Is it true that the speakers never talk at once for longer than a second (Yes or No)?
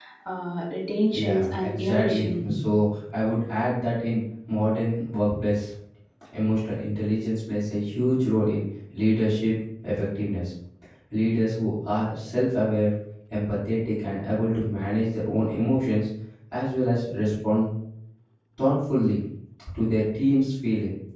No